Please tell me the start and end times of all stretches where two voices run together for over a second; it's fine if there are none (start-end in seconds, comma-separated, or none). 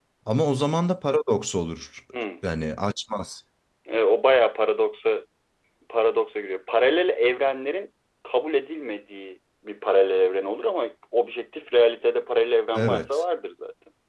none